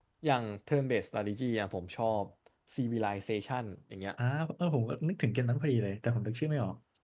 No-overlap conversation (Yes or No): Yes